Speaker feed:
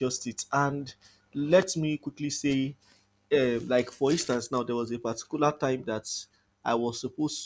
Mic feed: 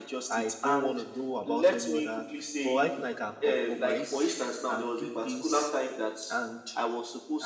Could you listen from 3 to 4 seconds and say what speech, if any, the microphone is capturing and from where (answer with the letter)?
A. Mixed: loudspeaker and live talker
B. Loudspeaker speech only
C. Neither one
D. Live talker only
A